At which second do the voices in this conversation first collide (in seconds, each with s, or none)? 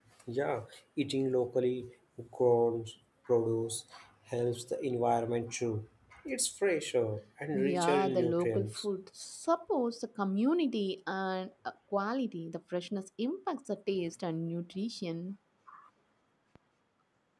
7.5 s